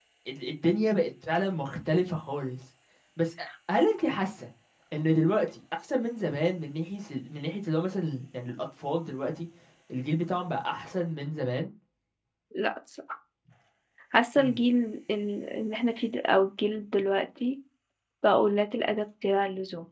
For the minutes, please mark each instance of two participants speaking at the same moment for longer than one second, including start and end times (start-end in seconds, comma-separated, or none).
none